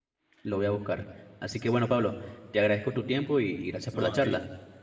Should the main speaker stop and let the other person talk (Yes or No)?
Yes